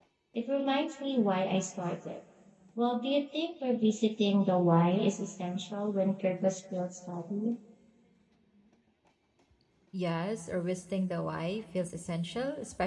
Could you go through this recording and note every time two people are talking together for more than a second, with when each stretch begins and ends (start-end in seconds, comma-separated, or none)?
none